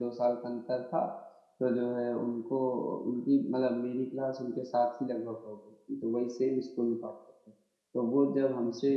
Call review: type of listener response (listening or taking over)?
listening